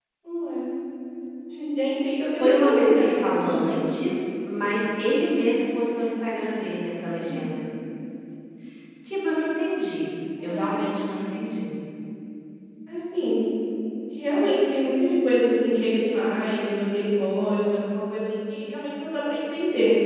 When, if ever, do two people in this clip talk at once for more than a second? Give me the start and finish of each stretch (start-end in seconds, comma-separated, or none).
2.4-3.7